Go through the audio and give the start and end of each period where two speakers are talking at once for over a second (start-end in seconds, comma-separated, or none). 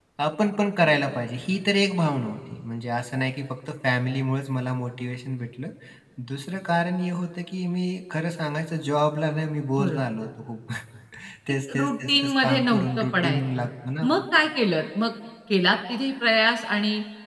11.7-13.7